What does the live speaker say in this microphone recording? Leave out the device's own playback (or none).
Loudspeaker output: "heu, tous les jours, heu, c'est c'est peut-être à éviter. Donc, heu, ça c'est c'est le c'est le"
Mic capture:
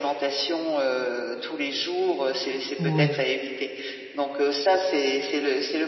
Oui.